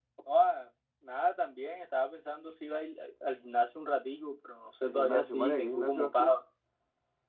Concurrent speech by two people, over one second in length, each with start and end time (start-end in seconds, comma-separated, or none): 4.8-6.4